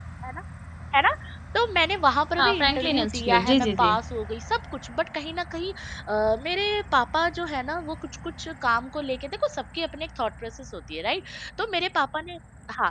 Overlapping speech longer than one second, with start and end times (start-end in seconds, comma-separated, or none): 2.4-4.0